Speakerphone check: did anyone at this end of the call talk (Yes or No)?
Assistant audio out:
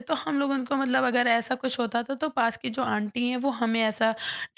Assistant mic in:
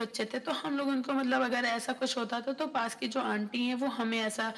No